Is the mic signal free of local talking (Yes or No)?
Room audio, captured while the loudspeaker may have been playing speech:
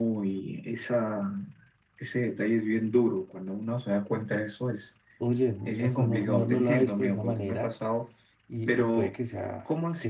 No